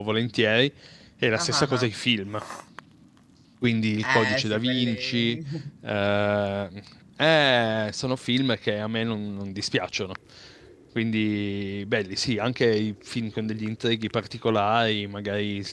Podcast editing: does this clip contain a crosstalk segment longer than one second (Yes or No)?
Yes